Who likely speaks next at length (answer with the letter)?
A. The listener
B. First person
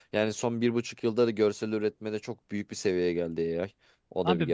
A